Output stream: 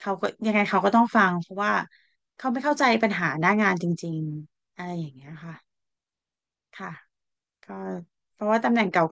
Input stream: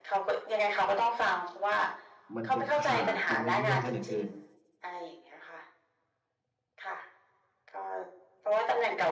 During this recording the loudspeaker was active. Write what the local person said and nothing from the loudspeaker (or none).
มันจะขาดตรงนี้กันซะเหลือเกิน